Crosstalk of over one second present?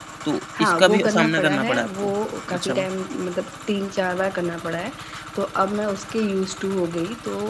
Yes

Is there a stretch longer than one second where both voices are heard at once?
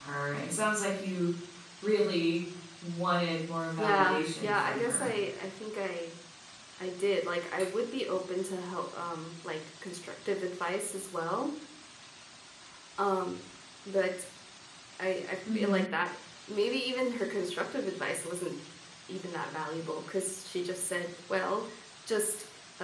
Yes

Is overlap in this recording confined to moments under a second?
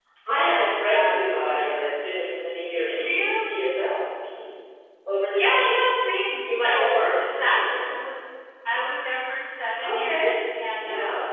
No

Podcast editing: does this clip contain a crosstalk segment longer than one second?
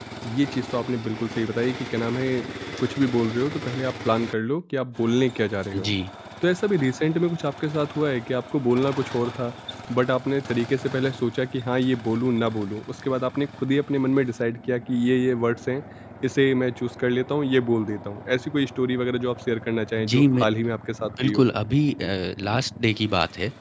No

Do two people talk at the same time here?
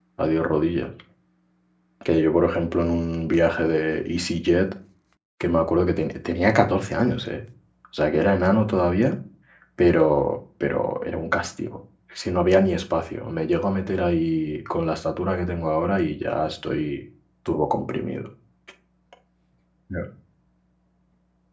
No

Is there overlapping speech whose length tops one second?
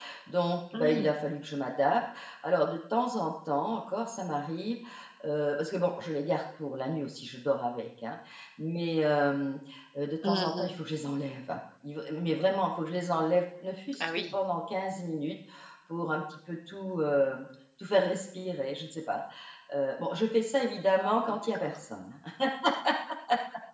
No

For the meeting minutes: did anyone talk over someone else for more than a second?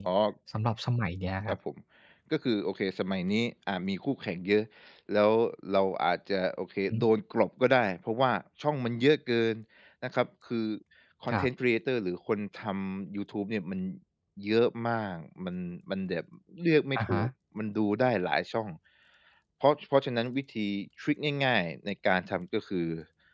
No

